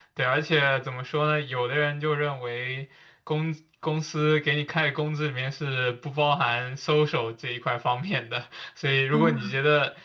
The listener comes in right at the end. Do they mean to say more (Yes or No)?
No